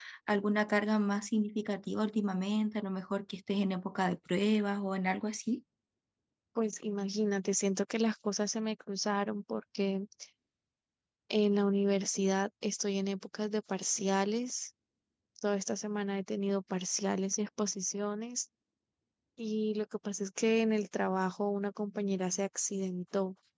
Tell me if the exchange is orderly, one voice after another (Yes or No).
Yes